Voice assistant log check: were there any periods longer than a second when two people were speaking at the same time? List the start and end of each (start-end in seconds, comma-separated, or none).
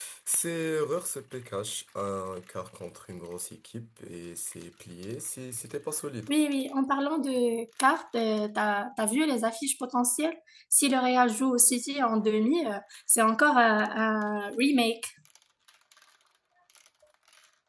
none